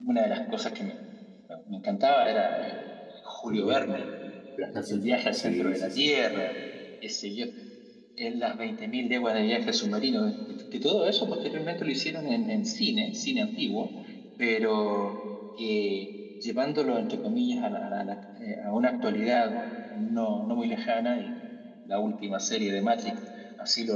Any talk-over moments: Yes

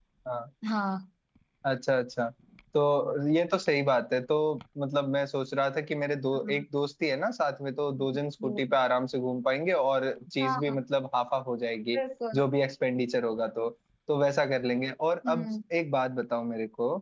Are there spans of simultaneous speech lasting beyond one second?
No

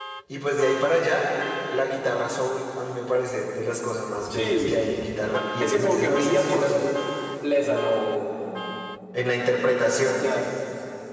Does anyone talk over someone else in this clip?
Yes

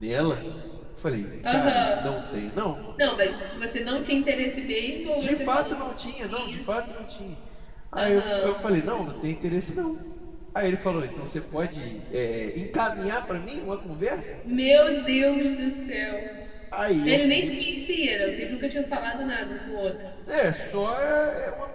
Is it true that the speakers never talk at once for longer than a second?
No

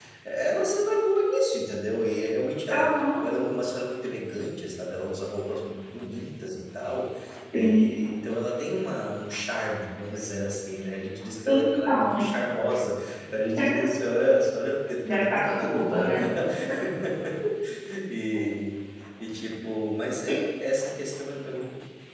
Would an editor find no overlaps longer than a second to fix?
No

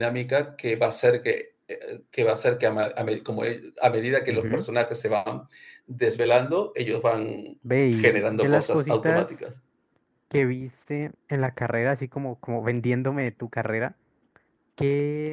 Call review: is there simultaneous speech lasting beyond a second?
Yes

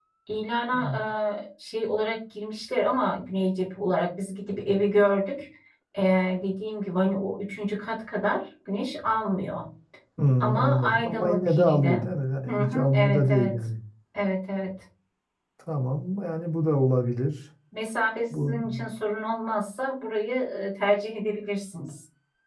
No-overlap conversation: No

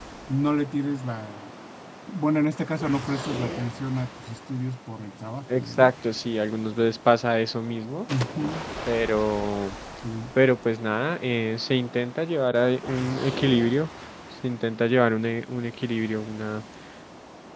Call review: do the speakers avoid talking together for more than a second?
Yes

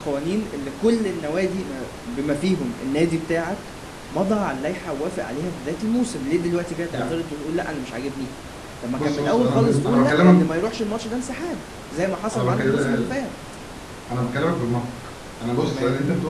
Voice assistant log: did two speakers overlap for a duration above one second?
Yes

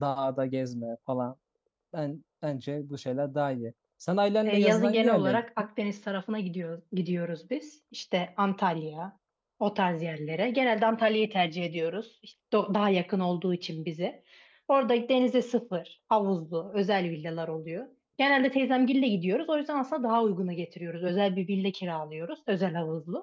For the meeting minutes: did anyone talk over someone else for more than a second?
Yes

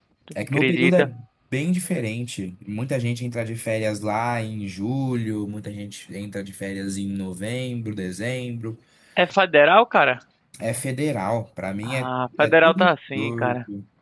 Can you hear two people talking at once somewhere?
Yes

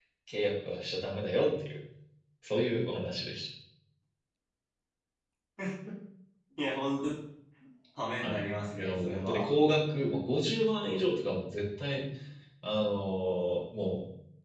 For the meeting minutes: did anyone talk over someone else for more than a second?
Yes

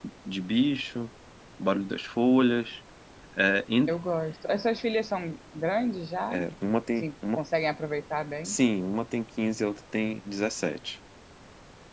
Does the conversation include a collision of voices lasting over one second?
No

